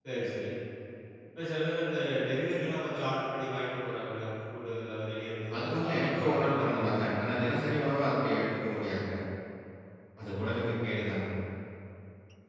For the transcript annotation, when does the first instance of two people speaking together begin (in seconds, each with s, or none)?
5.5 s